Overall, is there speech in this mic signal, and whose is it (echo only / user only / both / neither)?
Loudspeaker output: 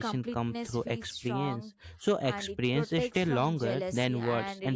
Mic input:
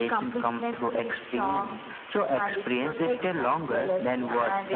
echo only